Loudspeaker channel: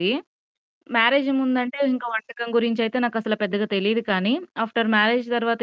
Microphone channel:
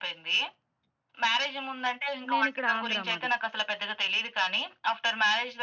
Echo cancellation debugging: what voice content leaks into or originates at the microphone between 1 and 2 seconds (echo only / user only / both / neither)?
echo only